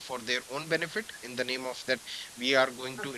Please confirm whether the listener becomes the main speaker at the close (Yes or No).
No